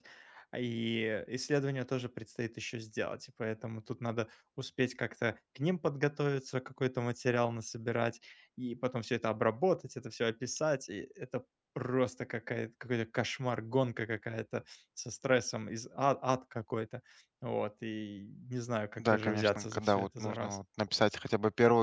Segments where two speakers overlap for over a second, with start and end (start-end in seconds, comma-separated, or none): 19.0-20.6